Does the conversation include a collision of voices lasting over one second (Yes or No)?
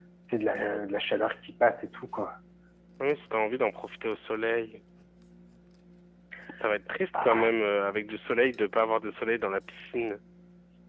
No